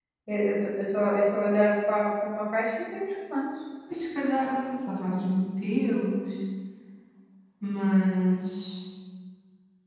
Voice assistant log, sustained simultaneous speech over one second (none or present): none